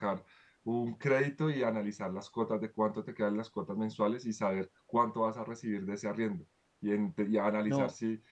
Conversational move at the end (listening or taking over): listening